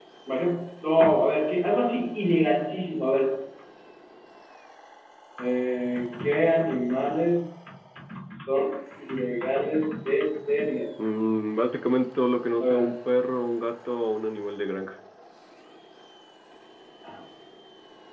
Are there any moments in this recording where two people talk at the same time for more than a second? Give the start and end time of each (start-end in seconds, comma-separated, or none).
none